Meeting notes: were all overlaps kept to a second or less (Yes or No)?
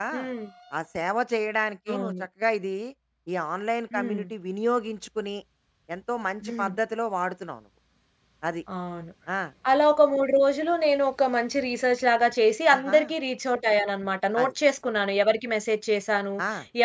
Yes